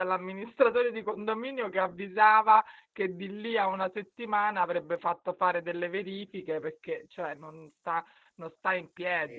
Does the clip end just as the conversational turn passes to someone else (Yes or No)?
No